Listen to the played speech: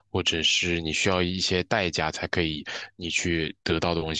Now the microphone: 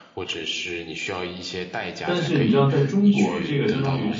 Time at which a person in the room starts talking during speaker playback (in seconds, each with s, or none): 2.0 s